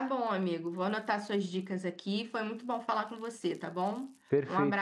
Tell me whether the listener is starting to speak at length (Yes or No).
Yes